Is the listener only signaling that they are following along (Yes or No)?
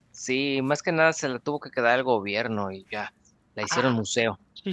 No